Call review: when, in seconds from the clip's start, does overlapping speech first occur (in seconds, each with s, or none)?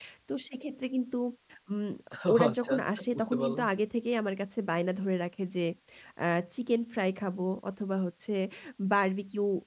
2.3 s